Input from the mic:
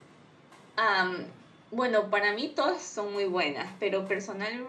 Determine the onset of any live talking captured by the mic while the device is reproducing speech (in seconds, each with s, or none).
0.8 s